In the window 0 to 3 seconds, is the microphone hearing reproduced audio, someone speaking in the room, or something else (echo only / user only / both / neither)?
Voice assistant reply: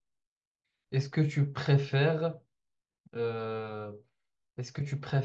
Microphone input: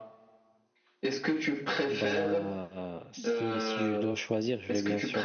both